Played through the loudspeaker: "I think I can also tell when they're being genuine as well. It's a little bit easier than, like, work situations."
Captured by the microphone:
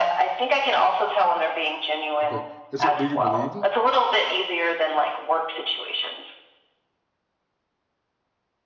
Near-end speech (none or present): present